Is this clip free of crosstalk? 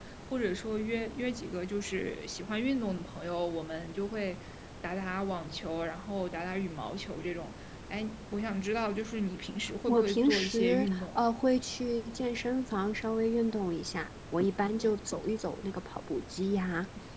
No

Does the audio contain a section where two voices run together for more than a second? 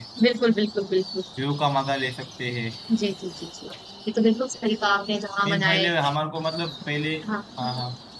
No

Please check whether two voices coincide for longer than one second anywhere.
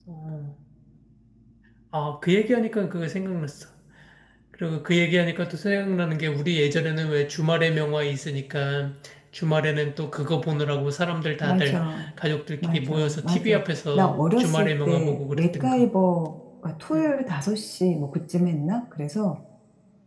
Yes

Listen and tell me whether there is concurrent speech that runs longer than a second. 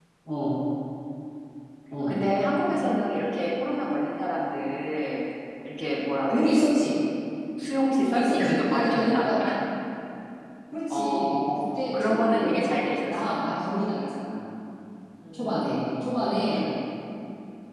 Yes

